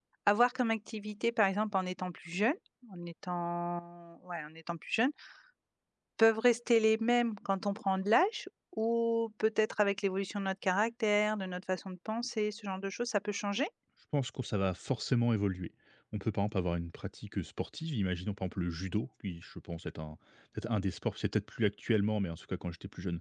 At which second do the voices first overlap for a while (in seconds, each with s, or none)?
none